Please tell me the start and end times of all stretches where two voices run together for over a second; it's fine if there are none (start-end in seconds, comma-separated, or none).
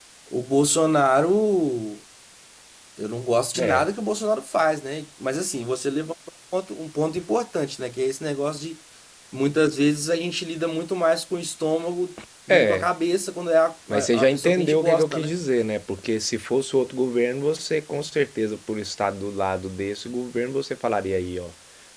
13.9-15.3